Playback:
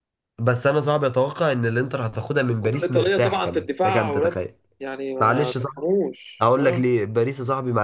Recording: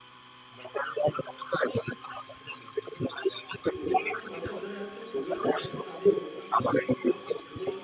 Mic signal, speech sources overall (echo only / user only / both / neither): both